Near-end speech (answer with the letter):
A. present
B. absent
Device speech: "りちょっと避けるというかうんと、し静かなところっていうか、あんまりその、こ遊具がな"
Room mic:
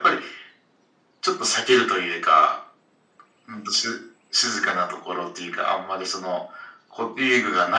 B